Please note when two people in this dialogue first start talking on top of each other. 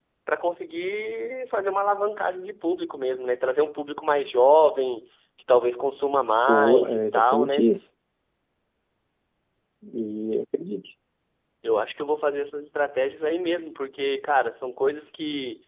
6.5 s

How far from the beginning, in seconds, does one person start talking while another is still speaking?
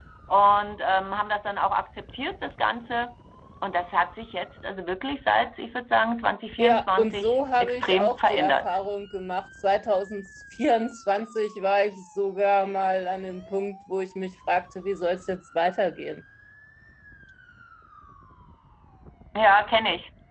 6.6 s

